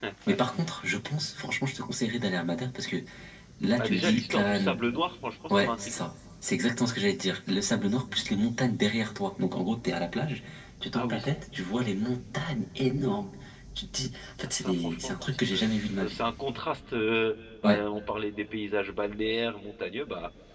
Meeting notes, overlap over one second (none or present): present